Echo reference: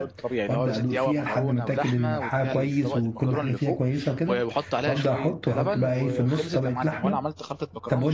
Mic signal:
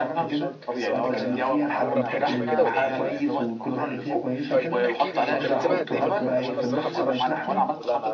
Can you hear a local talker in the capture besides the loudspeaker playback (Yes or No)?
Yes